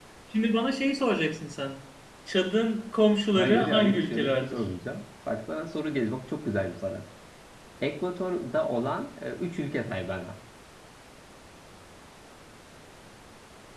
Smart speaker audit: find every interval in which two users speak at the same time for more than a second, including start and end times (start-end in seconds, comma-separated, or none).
3.3-4.6